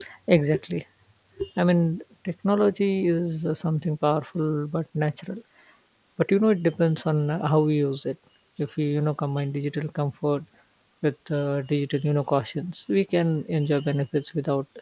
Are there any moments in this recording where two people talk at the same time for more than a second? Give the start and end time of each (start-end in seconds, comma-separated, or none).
none